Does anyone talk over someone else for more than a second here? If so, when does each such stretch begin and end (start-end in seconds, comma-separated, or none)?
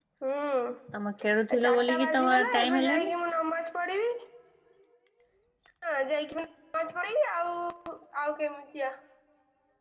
1.2-3.1